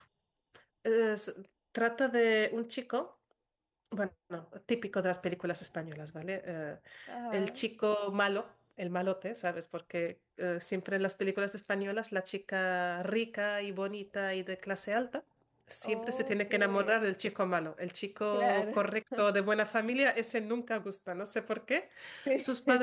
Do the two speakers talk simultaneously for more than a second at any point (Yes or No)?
Yes